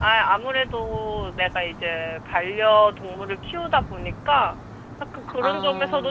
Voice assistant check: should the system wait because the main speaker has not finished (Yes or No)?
Yes